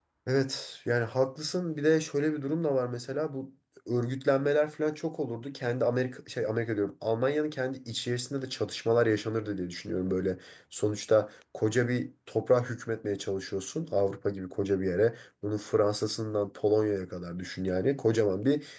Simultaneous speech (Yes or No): No